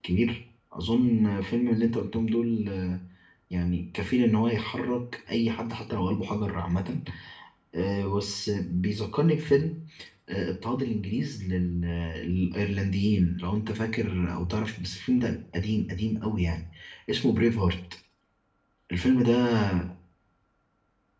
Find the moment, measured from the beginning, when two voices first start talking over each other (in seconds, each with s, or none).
none